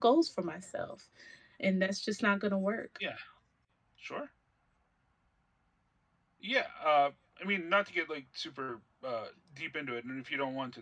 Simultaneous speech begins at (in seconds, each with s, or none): none